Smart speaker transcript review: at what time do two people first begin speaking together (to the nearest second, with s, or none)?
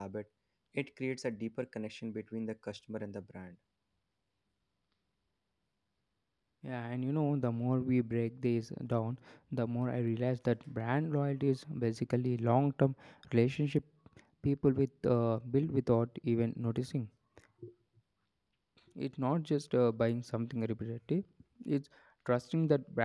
none